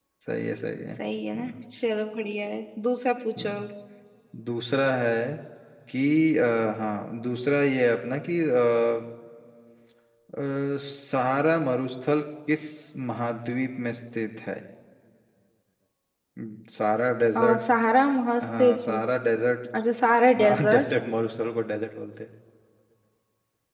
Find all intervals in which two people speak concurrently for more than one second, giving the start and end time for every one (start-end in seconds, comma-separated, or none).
none